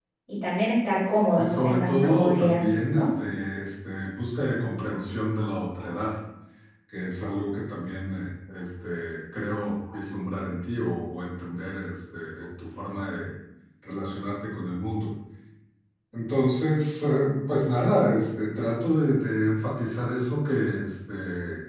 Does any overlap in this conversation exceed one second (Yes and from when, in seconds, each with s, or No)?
Yes, from 1.4 s